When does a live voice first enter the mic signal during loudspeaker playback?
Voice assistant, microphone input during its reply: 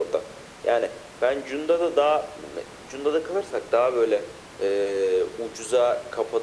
none

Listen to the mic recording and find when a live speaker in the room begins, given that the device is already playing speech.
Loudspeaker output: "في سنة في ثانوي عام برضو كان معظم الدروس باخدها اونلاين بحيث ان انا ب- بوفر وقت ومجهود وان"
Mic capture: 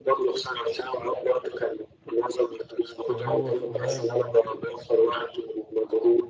3.1 s

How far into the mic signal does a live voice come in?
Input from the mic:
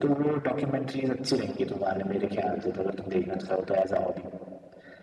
none

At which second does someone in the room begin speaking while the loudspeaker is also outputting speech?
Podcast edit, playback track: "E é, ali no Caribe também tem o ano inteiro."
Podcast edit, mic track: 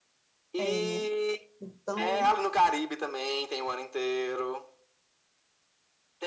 0.6 s

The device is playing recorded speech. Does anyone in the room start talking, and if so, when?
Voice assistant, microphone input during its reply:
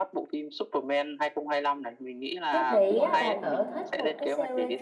2.5 s

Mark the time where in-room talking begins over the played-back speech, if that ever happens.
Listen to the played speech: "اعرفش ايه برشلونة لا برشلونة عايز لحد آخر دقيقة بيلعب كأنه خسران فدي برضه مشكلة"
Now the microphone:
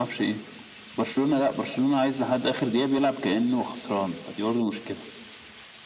none

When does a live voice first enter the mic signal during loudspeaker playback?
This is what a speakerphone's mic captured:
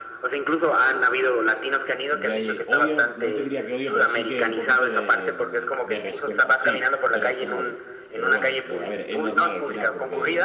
2.1 s

